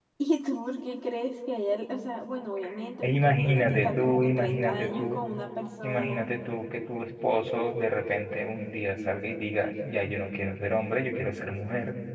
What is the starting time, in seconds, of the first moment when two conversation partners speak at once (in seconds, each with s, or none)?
3.0 s